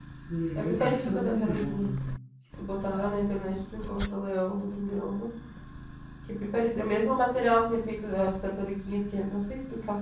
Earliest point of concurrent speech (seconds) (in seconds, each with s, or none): 0.6 s